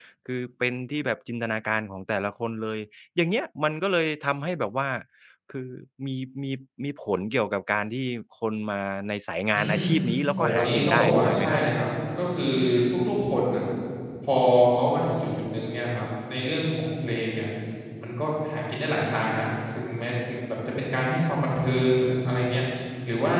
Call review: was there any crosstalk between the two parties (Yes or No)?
Yes